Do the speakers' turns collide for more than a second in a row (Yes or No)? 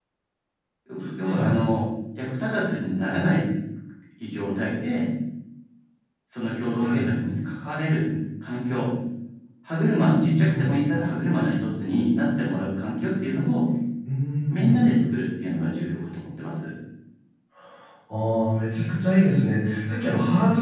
No